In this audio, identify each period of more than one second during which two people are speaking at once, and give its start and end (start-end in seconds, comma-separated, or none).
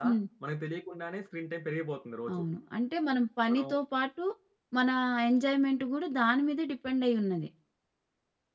none